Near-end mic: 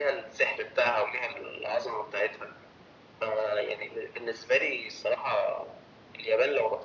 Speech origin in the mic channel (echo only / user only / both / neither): echo only